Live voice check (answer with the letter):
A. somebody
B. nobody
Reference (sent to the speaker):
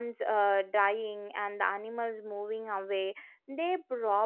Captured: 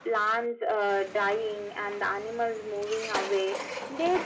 B